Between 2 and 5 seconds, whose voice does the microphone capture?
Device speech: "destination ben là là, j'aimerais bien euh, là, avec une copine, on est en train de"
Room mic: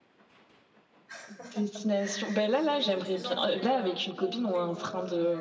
both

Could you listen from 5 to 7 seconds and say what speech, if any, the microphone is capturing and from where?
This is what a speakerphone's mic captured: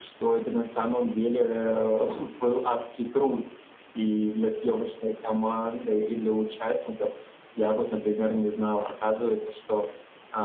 echo only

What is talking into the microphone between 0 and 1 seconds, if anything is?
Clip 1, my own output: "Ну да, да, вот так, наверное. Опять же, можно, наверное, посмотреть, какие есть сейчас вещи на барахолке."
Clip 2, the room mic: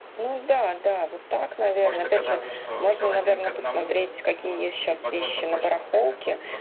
echo only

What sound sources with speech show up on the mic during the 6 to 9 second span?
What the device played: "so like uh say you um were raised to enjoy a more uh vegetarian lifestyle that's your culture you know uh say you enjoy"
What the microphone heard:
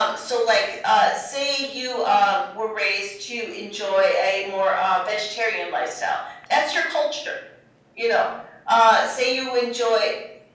echo only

